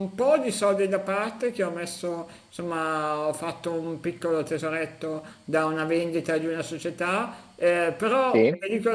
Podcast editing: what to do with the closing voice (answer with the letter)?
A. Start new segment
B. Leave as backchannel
B